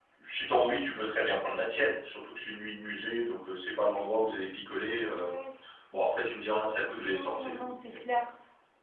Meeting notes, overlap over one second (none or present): present